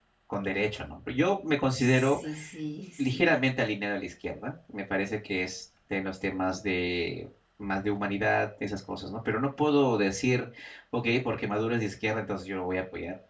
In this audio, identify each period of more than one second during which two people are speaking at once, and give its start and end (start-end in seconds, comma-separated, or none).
none